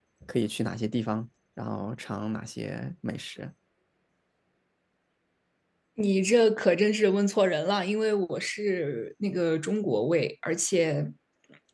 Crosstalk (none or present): none